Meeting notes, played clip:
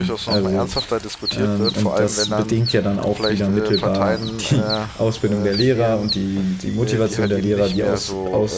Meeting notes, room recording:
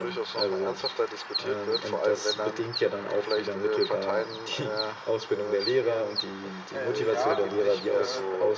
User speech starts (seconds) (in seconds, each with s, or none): 6.7 s